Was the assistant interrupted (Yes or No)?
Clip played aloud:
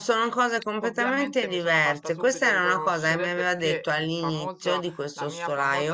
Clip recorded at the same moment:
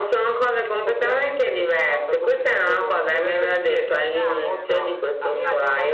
Yes